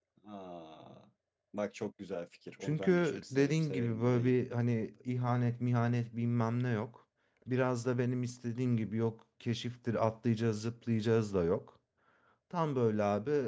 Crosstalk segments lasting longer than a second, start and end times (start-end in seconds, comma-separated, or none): 2.6-4.3